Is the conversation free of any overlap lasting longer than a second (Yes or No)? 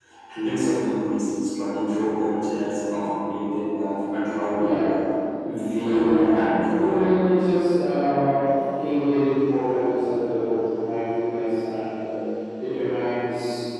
No